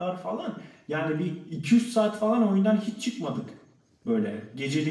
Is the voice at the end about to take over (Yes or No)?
No